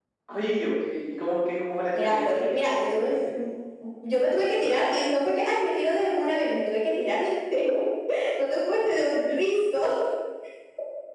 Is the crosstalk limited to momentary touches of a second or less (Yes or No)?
No